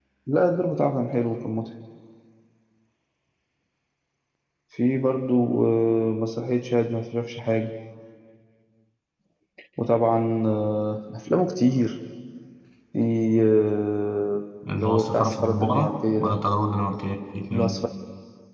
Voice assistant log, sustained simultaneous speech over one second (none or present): present